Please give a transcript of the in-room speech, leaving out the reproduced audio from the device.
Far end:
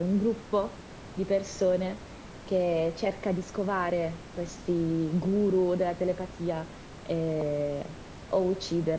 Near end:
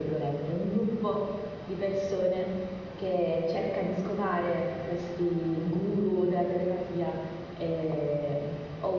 none

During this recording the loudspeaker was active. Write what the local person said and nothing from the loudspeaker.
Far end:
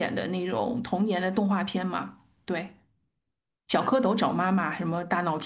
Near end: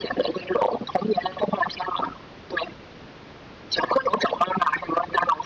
none

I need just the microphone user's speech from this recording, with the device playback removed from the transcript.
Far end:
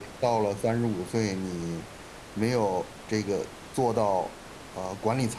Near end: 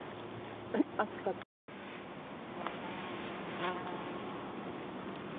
none

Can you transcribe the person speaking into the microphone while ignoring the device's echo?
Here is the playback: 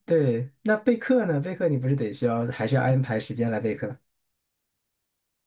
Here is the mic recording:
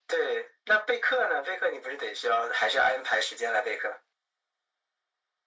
none

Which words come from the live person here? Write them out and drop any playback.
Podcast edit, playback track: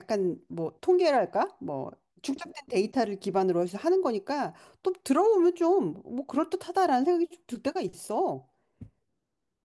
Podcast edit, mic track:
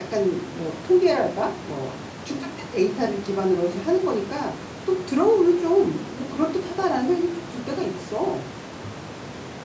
none

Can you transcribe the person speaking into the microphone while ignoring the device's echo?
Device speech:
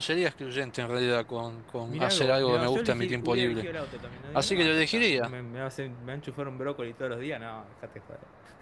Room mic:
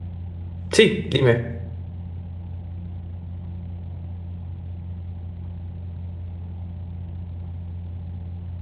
Sí, dime.

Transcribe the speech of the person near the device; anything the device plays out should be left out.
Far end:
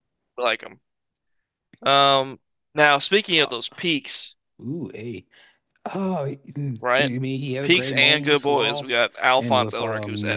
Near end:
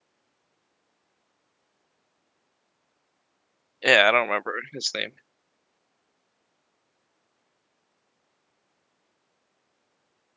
Yeah, I don't remember his name.

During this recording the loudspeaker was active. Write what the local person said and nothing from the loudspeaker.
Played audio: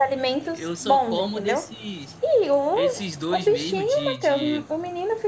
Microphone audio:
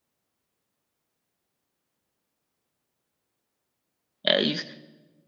é isso.

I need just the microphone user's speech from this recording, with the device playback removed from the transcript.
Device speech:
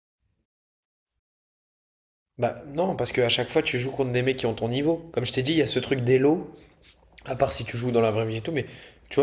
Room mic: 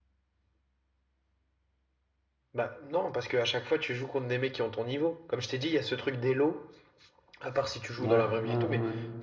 ouais ouais ouais ouais.

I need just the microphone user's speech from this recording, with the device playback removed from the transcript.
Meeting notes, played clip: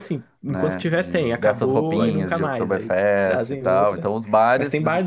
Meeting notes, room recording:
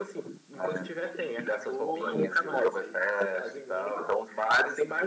none

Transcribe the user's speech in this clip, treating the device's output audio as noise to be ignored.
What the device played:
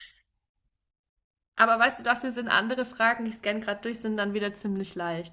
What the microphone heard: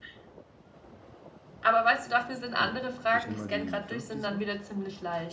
Ja. Ich nehme mal die 5 diesmal.

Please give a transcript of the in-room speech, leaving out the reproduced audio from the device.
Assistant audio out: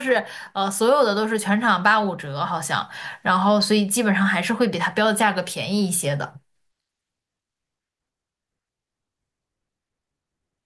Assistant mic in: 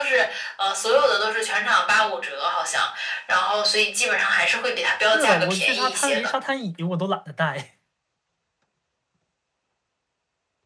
是的，我去沙滩，连沙滩椅我都懒得带

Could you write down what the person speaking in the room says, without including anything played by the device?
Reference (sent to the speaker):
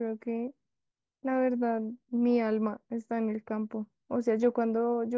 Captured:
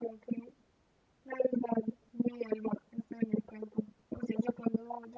none

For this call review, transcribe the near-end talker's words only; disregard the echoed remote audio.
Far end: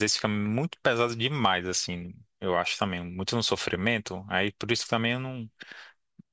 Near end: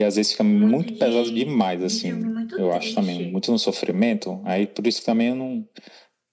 muito de, de filme muito triste.

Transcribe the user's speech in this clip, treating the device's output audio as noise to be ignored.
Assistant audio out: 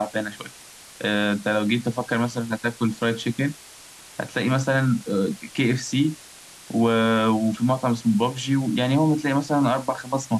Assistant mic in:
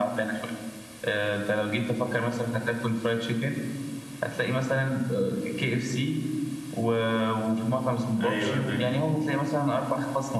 ايوه أنا فاهم

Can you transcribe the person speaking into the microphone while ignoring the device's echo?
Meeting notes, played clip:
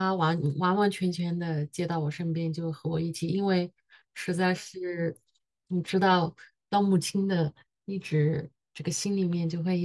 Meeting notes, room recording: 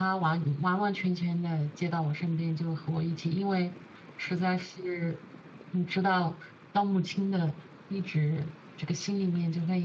none

